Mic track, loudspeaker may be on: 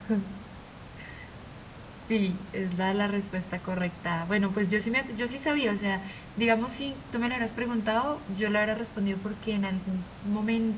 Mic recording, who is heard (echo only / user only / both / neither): echo only